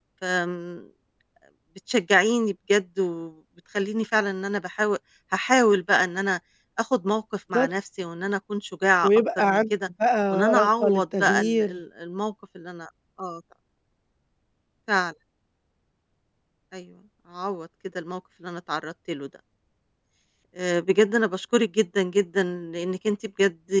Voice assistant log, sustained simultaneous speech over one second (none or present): present